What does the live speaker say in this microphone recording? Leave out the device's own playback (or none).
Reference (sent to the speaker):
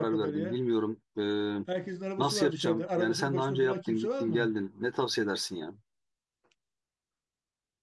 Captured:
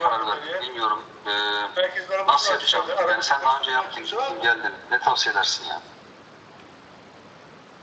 none